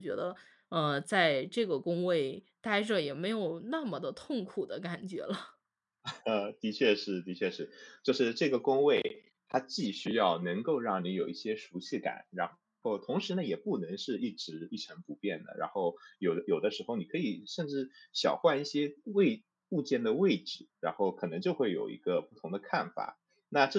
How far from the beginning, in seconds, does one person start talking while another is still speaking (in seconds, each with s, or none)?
none